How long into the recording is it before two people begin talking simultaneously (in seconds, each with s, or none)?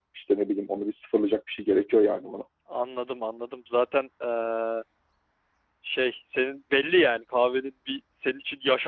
none